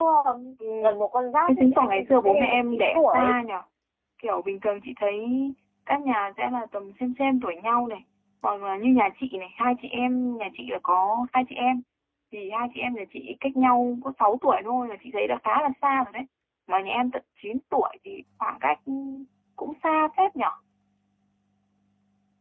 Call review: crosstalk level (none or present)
present